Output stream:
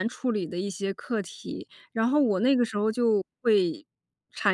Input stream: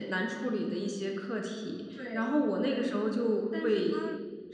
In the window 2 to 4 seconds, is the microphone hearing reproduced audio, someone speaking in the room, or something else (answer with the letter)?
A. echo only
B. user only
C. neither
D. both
D